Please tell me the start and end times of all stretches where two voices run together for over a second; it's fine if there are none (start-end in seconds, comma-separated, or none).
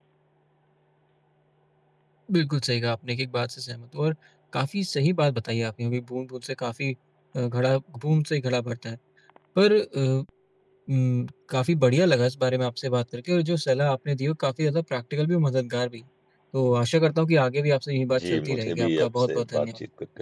18.2-19.7